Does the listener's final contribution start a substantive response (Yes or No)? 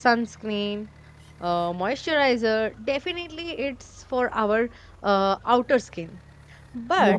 No